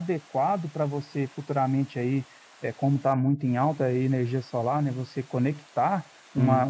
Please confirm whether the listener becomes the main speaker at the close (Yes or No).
No